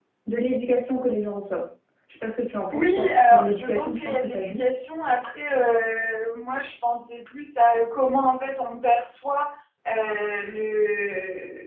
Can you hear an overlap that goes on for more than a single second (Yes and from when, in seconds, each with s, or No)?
Yes, from 2.7 s